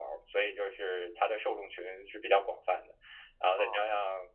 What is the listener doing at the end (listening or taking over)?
listening